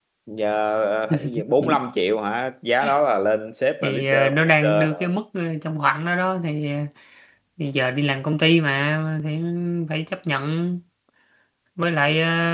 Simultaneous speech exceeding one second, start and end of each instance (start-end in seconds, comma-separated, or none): 3.8-5.2